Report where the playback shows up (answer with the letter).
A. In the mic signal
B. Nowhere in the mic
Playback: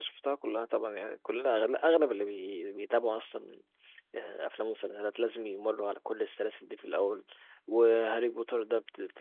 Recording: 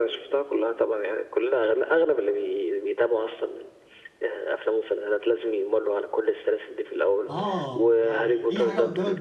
A